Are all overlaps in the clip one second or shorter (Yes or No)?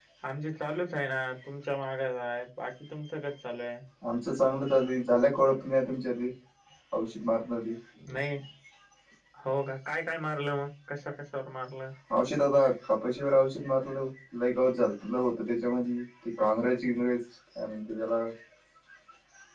Yes